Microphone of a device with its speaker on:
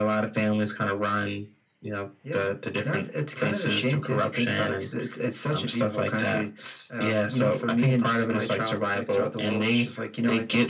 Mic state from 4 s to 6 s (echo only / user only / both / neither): echo only